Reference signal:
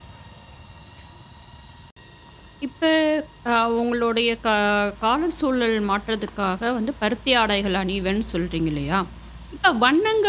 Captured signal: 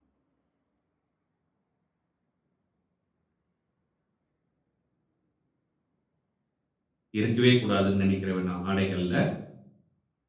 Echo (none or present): none